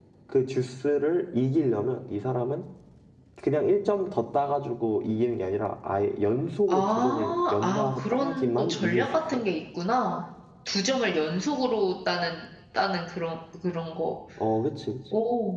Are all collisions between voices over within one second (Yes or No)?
No